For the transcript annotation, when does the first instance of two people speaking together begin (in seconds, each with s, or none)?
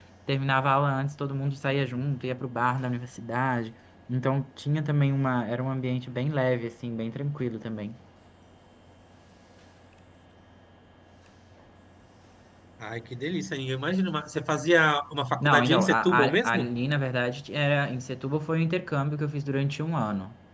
15.4 s